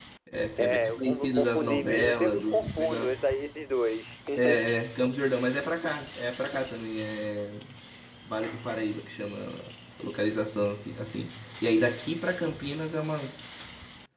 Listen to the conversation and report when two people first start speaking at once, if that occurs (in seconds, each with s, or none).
0.6 s